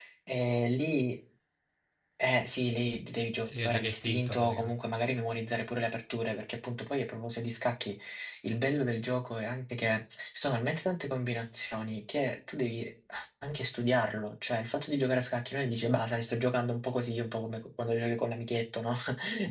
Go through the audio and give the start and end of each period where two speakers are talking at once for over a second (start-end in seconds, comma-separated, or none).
3.4-4.8